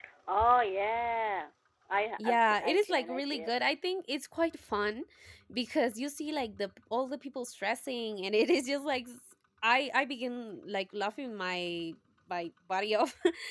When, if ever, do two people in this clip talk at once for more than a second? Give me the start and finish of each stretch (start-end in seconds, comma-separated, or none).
2.2-3.5